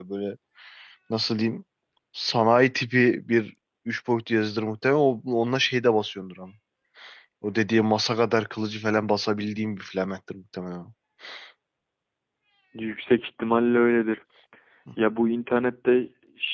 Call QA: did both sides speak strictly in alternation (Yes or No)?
Yes